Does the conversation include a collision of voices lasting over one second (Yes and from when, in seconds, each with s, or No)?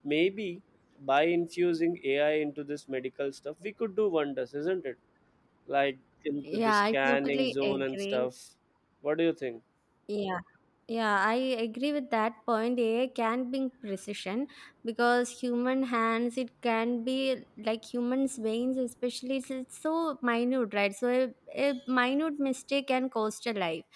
Yes, from 6.5 s